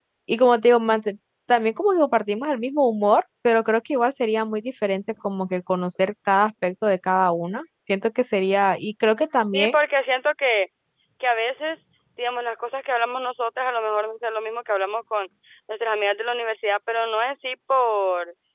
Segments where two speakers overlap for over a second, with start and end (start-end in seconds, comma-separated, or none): none